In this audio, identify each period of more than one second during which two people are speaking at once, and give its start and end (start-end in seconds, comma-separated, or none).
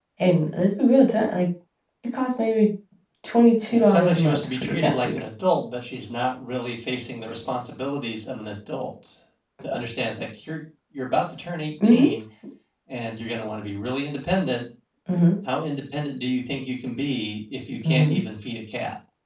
3.6-5.2